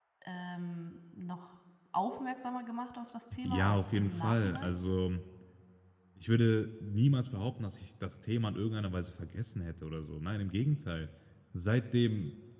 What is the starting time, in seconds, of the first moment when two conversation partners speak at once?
3 s

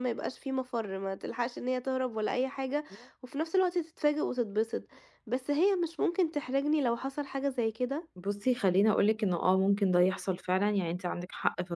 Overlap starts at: none

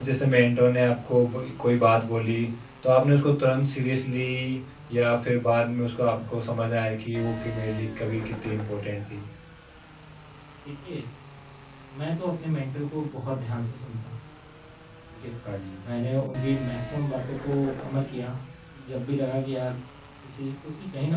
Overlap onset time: none

